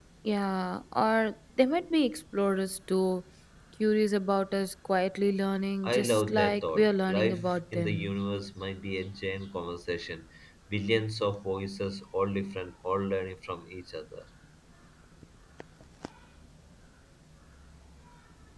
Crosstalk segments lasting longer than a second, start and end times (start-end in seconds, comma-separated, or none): 5.8-8.1